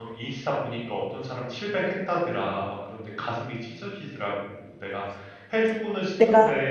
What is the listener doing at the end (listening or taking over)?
listening